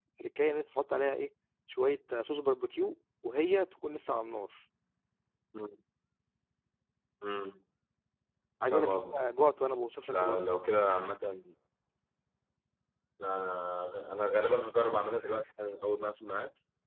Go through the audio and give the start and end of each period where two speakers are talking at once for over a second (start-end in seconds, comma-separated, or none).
none